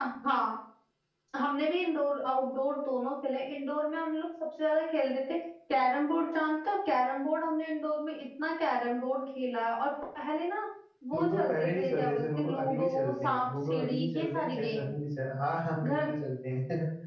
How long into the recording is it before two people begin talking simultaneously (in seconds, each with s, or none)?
11.1 s